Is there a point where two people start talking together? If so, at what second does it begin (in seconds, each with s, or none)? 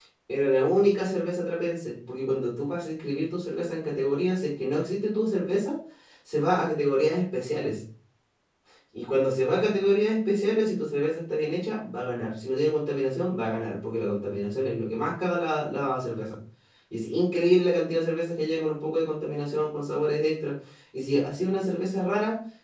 none